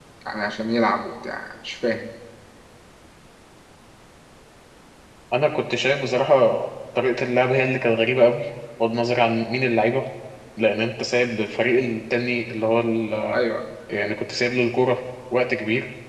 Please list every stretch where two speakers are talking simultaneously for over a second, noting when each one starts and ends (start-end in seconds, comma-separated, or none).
none